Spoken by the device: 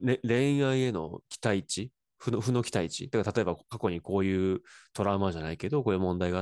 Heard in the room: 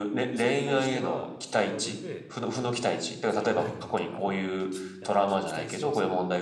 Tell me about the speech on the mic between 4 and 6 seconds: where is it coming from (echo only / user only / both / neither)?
both